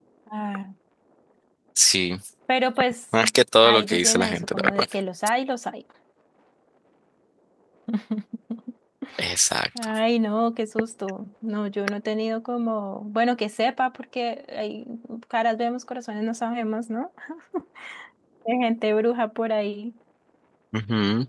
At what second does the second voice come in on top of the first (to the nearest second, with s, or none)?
4 s